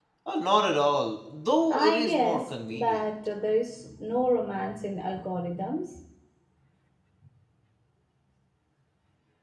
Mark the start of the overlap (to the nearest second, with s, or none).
2 s